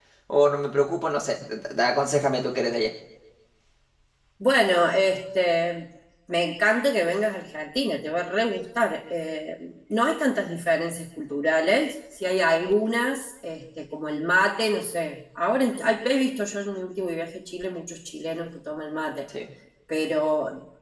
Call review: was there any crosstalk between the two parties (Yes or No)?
No